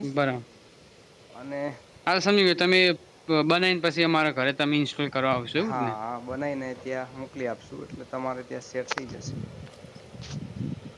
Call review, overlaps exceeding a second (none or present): none